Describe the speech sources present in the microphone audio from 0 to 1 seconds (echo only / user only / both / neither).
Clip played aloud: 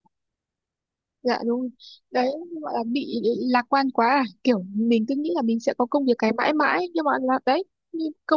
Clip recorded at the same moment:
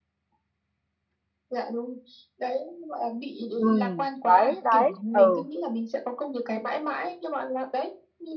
neither